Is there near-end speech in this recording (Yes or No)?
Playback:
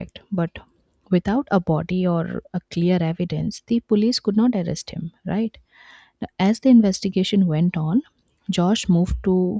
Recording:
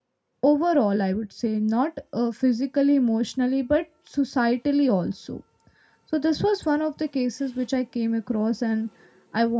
Yes